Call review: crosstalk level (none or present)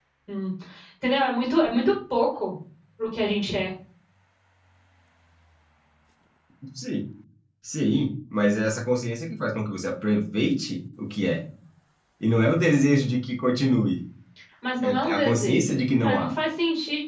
present